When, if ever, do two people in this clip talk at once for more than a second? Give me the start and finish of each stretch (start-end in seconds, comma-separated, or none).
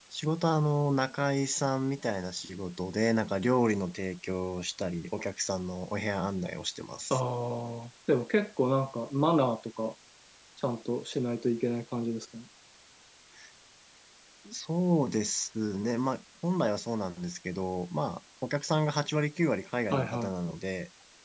none